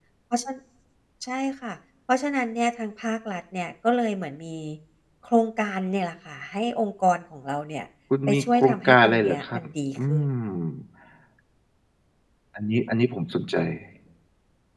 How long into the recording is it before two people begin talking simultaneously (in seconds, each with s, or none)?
8.3 s